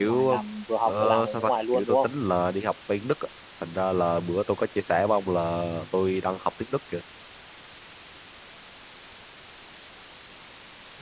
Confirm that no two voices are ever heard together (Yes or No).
No